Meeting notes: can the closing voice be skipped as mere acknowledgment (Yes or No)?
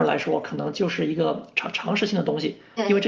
Yes